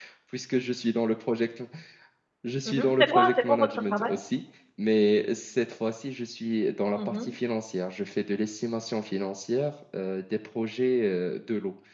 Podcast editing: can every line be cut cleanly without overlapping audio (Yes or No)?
No